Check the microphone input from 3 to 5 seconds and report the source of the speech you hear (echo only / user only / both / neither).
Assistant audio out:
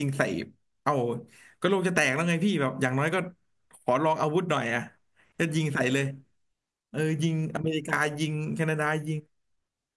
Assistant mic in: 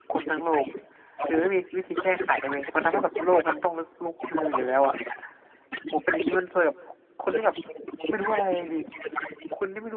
both